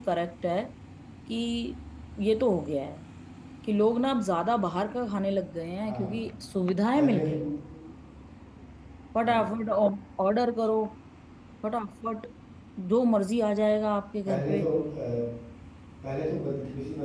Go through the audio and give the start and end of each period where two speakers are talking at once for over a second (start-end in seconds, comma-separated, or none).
none